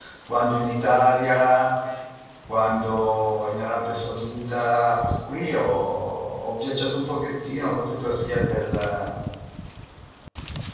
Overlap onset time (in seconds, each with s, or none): none